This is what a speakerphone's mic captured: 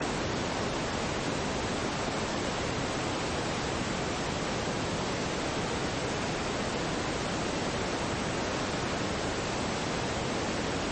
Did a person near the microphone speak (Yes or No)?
No